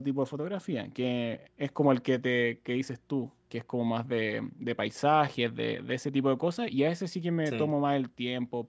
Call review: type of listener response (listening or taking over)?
listening